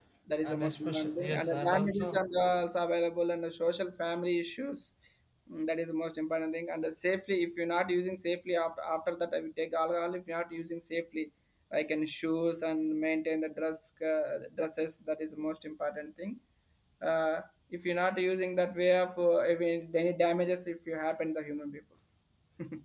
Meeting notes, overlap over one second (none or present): present